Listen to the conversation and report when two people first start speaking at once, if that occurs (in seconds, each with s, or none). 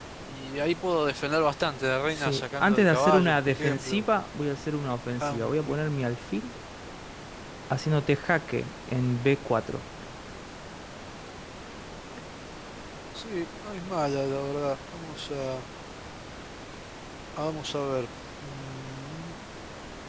2.1 s